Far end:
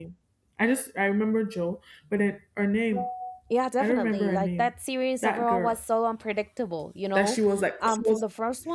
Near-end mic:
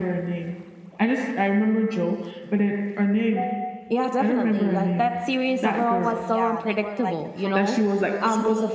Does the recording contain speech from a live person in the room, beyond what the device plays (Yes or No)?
Yes